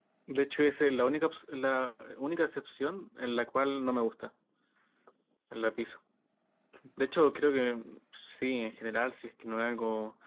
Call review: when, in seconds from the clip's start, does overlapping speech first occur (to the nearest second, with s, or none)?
none